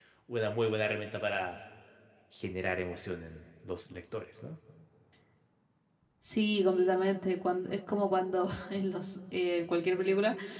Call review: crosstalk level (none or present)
none